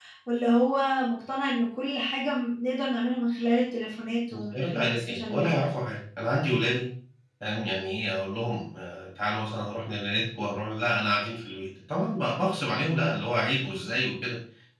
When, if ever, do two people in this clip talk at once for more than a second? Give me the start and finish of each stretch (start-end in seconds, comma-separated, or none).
4.3-5.6